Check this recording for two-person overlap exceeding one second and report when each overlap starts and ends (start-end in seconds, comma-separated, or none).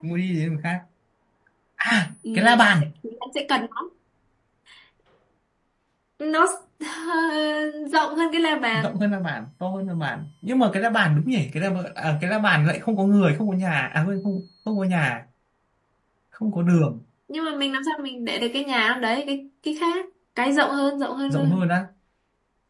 none